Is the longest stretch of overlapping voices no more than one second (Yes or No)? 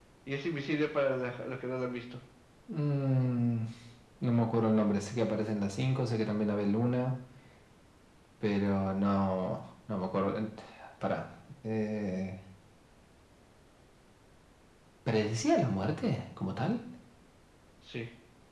Yes